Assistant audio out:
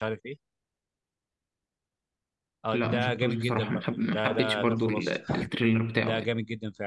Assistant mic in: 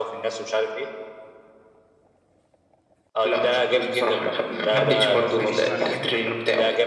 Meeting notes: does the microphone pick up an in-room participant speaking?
Yes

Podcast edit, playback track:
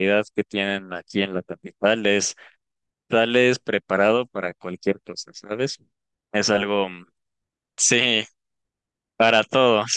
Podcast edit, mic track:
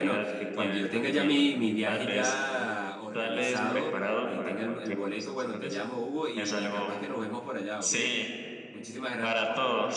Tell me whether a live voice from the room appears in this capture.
Yes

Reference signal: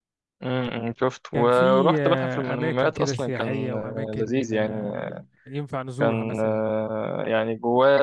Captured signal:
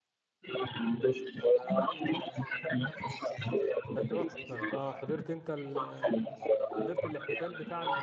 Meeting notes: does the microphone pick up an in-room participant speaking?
Yes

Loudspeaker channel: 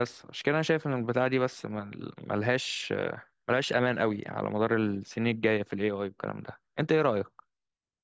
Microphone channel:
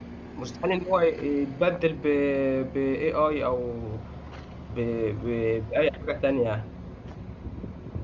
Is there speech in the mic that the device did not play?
Yes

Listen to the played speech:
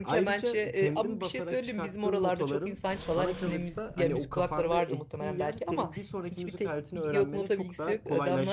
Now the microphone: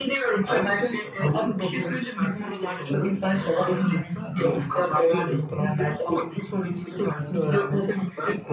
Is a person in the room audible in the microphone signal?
No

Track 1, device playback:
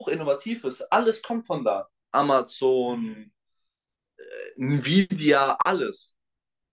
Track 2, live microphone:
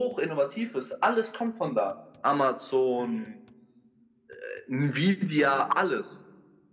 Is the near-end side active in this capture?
No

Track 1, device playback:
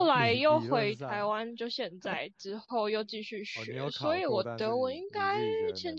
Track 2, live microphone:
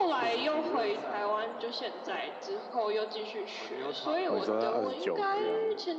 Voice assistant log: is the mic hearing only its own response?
No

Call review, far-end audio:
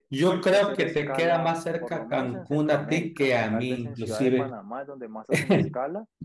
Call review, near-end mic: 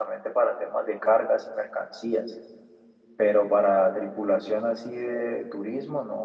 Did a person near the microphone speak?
Yes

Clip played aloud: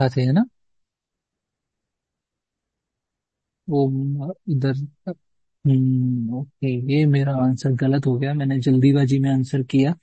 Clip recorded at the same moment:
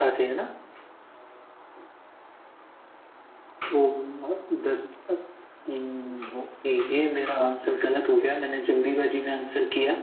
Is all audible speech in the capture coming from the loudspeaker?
Yes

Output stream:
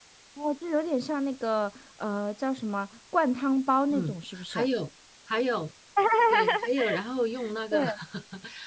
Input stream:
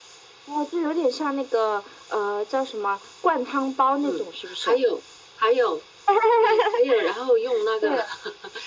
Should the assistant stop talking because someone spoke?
No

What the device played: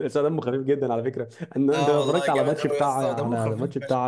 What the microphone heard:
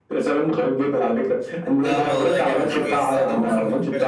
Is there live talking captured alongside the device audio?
No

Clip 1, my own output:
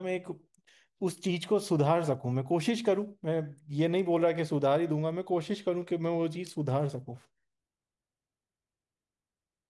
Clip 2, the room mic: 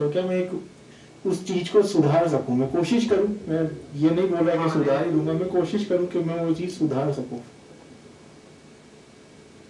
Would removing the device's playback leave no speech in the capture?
No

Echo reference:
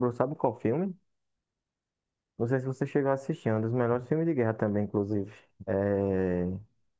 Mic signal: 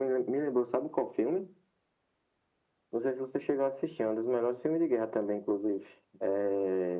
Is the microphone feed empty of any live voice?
Yes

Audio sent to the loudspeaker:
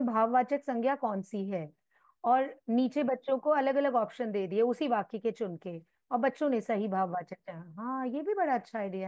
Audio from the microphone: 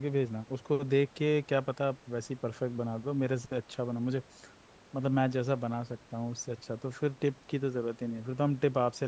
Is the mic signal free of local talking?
No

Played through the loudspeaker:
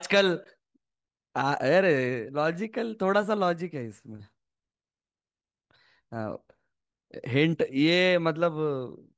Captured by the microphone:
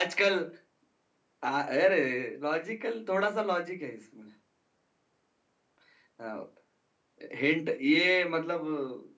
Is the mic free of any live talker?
Yes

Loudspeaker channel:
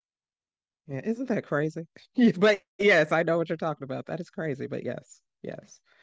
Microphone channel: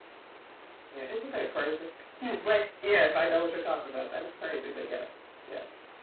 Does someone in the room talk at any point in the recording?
No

